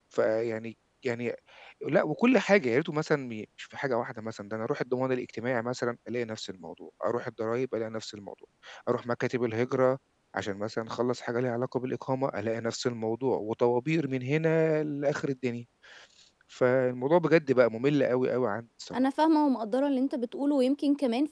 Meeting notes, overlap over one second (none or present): none